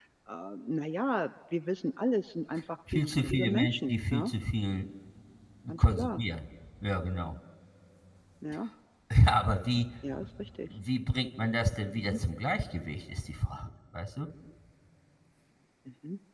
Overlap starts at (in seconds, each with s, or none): 2.9 s